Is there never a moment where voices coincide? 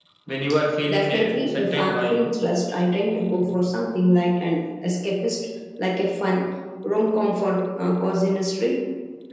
No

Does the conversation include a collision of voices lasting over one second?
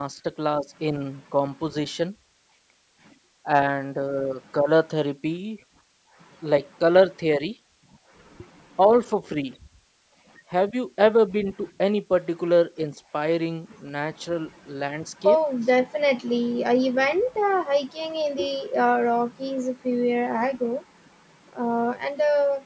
No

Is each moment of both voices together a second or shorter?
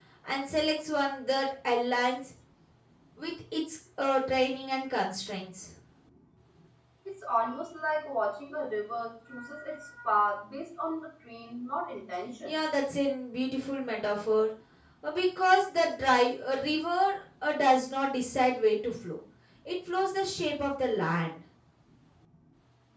Yes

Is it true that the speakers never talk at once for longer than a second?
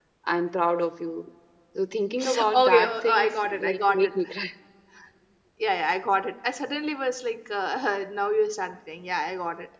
No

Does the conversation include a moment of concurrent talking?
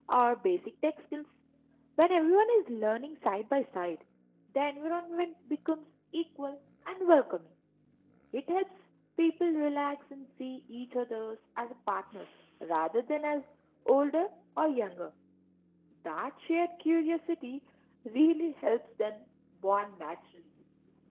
No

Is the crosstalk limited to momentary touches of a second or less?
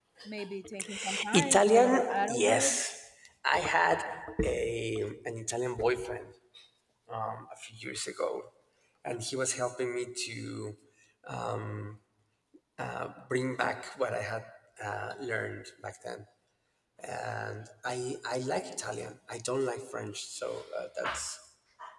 No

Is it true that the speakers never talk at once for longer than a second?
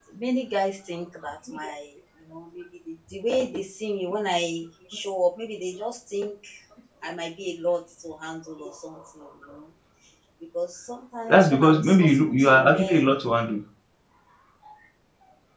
No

